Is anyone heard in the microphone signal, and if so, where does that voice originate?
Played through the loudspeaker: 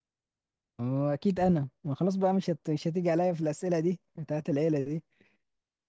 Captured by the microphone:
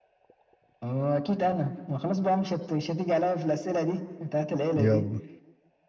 both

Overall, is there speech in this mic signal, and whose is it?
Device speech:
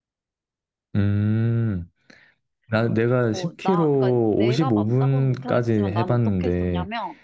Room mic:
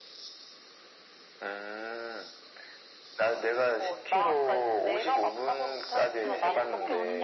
both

